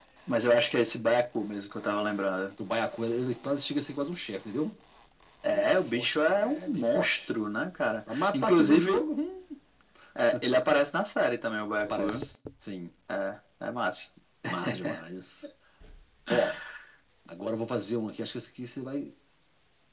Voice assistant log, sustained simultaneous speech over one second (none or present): present